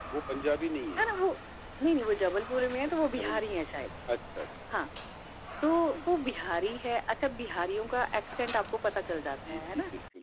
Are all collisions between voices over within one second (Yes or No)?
Yes